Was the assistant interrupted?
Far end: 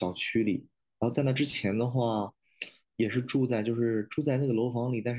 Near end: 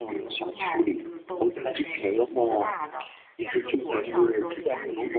Yes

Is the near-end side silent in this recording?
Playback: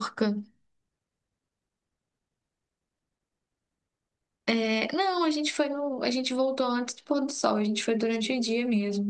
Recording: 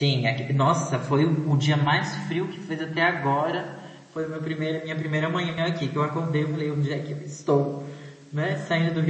No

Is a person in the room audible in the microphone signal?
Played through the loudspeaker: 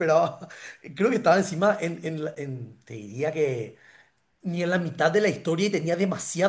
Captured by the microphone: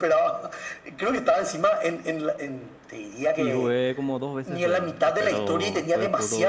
Yes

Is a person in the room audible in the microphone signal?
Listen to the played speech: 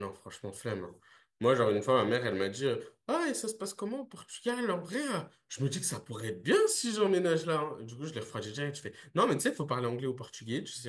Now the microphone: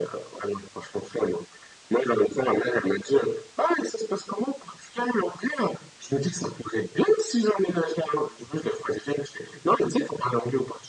No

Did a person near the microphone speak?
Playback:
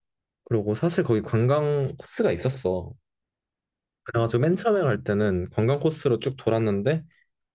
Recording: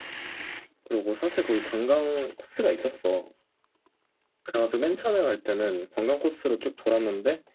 No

